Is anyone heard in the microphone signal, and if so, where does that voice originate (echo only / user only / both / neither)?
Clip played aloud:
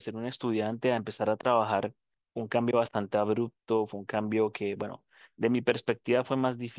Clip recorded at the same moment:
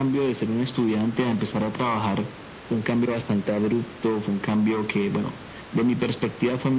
echo only